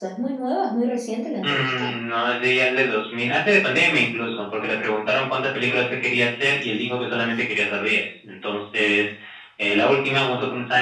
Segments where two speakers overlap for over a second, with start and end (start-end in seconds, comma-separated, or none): none